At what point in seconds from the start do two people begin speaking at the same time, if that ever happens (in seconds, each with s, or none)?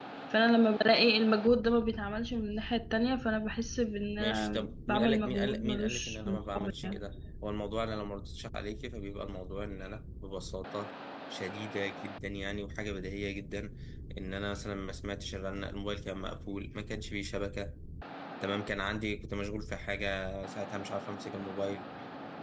4.2 s